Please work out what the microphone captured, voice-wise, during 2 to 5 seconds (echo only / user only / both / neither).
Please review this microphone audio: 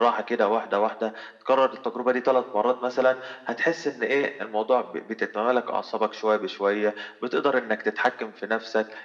echo only